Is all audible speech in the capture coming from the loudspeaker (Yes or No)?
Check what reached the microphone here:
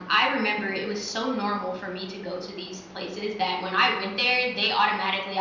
Yes